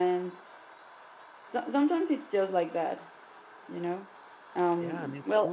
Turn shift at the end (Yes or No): Yes